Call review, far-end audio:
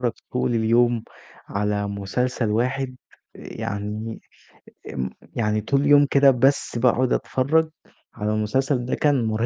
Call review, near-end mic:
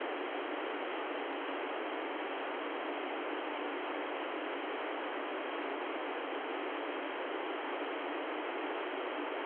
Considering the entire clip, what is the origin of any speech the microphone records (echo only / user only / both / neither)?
neither